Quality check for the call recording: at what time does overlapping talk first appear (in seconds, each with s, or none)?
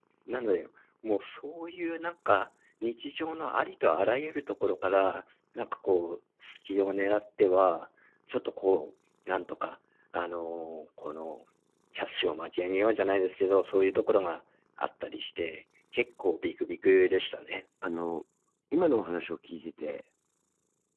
none